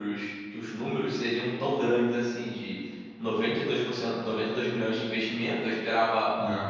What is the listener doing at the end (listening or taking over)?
listening